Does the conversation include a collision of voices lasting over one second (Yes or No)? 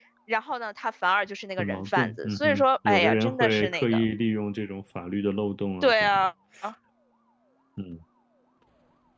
Yes